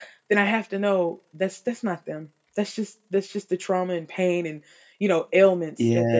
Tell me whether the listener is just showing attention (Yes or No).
No